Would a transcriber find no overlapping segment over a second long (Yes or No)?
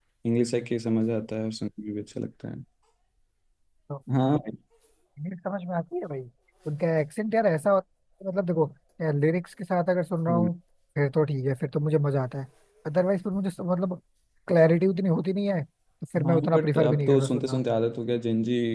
No